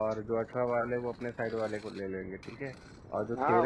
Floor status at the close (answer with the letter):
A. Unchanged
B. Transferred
A